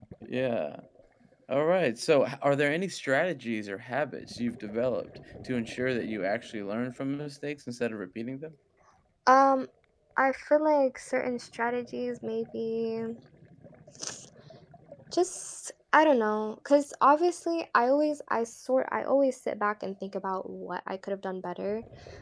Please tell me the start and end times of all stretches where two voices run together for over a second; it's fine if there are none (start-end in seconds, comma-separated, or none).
none